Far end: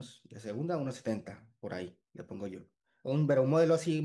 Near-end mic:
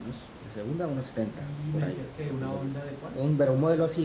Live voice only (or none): Y me decías que una Honda de cuál?